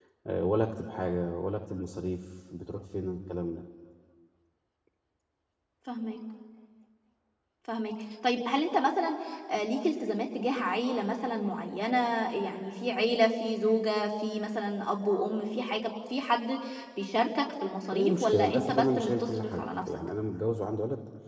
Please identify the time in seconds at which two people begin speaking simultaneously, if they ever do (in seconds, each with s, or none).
17.9 s